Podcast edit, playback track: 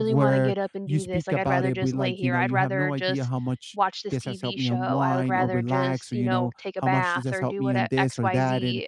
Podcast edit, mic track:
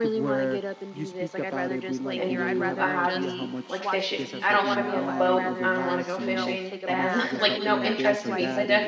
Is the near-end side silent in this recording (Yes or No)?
No